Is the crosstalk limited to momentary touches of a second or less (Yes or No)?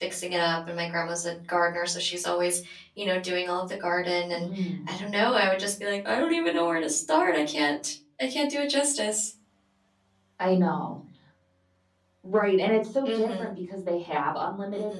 Yes